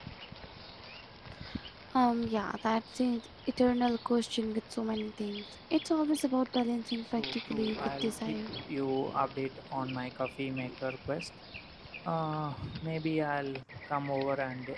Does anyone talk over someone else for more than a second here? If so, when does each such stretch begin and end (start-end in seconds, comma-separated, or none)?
7.2-8.4